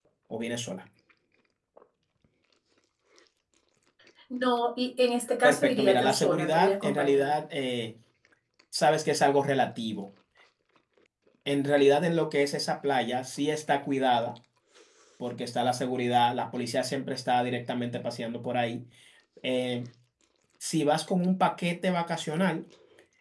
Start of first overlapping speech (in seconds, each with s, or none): 5.4 s